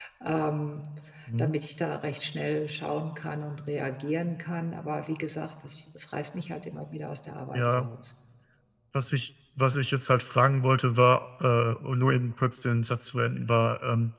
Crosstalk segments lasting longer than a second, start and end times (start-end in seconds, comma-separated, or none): none